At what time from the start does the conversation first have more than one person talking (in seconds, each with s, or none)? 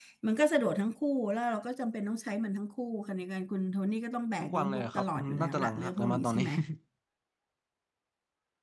4.4 s